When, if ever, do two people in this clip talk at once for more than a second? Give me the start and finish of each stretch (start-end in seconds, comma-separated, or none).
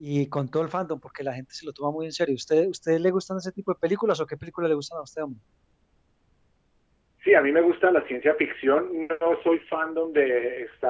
none